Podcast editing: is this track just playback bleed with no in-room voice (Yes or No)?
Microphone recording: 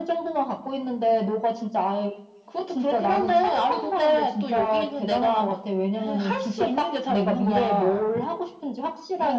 Yes